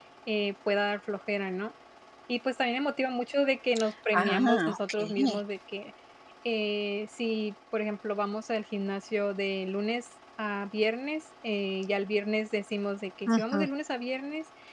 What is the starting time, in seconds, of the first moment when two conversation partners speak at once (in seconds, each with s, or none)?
4.1 s